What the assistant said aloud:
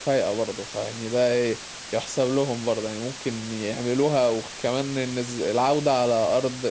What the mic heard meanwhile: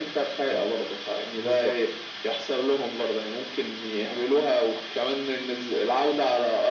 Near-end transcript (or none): أمم. بالظبط